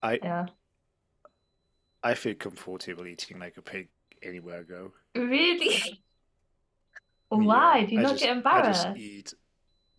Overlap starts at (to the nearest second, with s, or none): 7 s